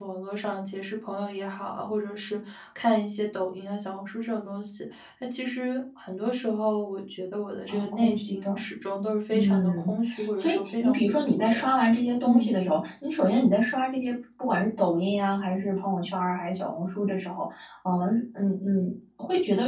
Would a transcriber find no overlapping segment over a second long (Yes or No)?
No